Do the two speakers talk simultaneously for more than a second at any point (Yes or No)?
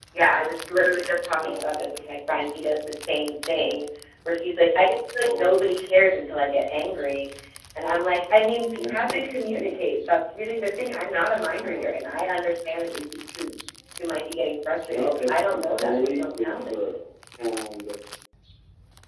Yes